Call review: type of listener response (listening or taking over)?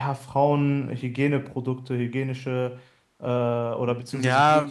taking over